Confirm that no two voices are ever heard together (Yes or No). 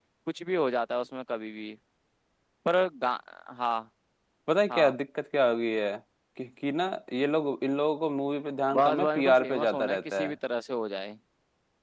No